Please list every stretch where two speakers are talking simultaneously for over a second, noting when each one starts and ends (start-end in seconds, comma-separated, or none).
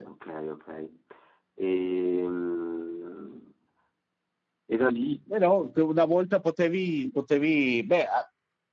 none